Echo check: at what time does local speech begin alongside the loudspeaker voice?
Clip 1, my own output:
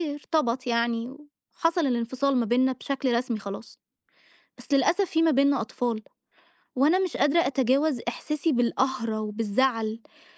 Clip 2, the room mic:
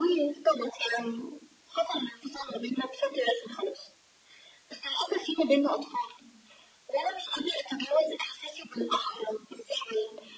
none

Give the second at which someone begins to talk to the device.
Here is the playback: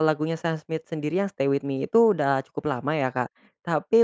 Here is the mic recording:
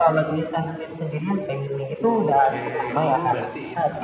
2.1 s

